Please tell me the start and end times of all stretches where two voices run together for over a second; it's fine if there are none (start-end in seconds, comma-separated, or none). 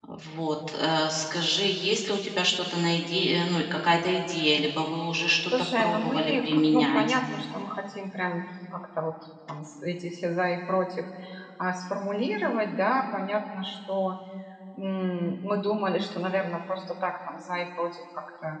5.8-7.2